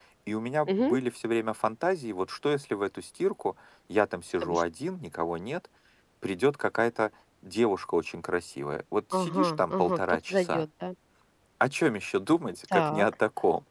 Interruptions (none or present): present